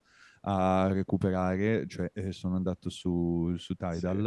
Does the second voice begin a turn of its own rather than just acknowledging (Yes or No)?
No